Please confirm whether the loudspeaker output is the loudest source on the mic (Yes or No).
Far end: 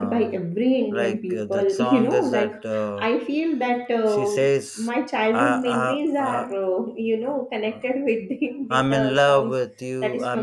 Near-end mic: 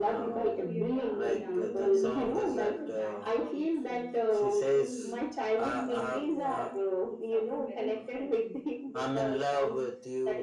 Yes